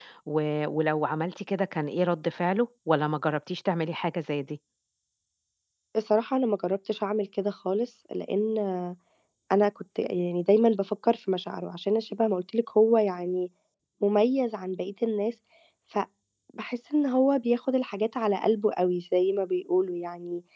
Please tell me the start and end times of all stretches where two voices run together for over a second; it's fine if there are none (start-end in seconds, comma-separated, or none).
none